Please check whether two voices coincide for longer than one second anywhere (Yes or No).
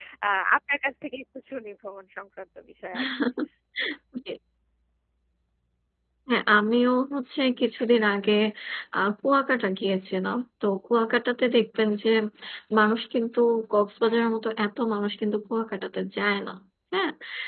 No